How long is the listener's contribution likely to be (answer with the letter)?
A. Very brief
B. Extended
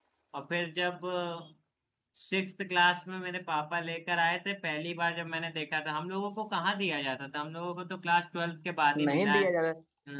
B